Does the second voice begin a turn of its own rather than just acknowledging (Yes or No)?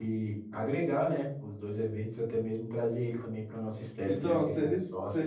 Yes